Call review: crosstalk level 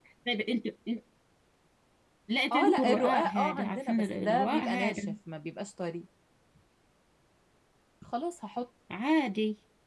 present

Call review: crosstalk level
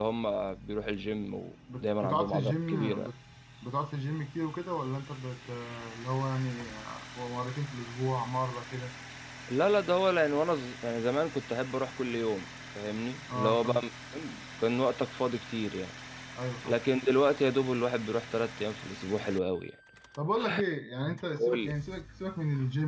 present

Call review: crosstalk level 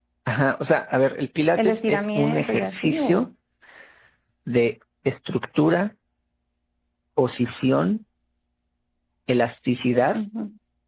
present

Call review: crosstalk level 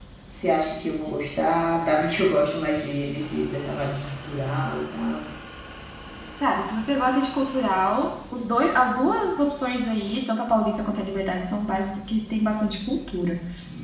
none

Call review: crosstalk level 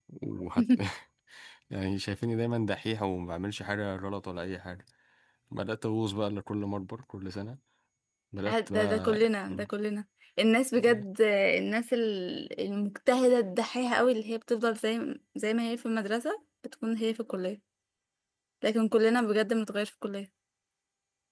present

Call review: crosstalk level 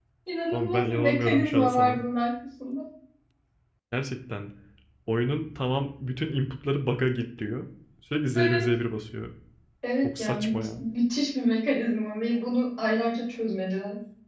present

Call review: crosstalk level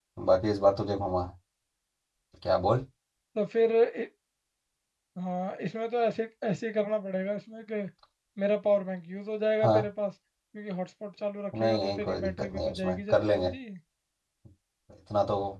present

